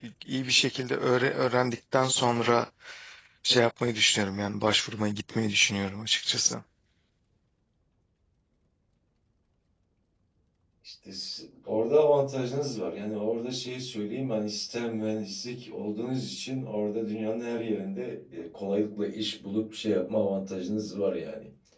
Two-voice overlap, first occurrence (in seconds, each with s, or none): none